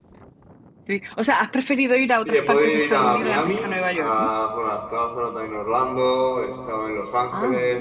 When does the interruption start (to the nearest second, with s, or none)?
2 s